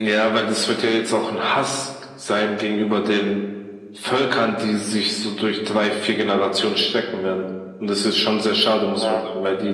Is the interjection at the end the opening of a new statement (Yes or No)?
No